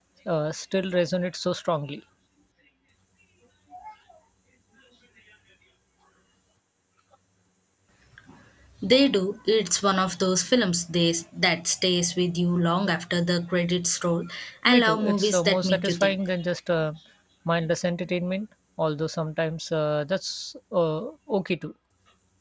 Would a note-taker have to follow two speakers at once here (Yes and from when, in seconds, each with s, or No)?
Yes, from 14.6 s